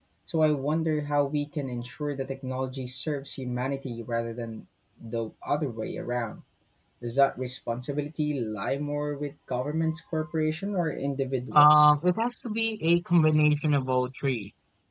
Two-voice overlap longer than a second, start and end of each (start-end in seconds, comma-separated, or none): none